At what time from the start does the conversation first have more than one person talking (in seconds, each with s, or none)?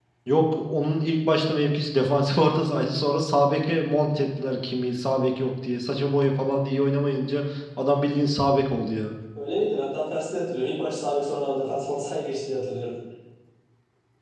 none